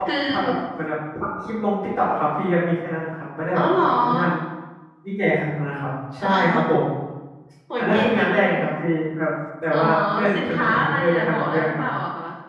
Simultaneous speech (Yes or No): Yes